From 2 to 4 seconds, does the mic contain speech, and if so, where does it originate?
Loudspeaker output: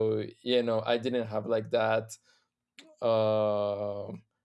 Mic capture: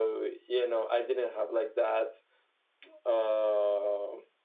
echo only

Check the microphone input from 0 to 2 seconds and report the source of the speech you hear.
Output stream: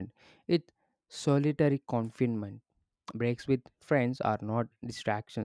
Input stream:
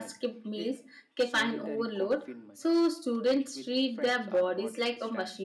both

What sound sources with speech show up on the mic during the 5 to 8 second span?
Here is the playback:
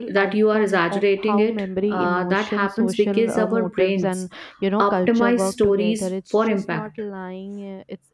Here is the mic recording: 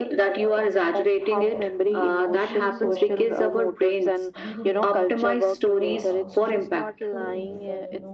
both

